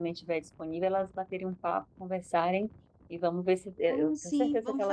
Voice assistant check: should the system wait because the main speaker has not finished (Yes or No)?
No